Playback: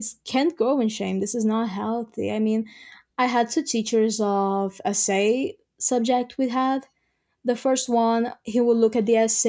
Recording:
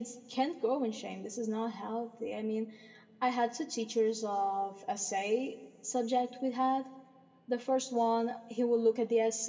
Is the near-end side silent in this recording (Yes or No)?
Yes